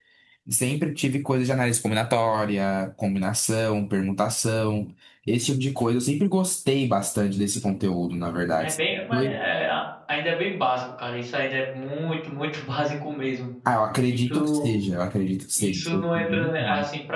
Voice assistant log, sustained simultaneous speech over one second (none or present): present